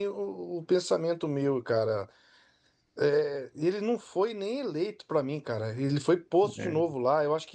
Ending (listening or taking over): listening